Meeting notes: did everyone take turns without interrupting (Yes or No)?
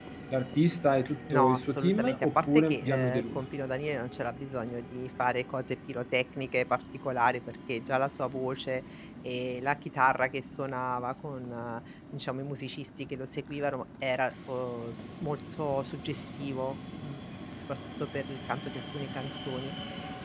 No